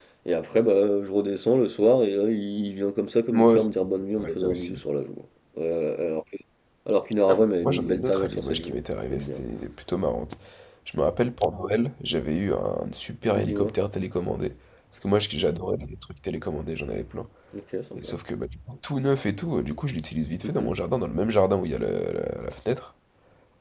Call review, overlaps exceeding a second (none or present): present